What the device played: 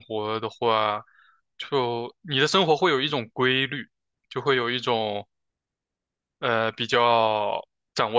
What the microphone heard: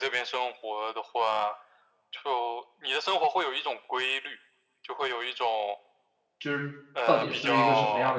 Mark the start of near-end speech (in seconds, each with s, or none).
6.4 s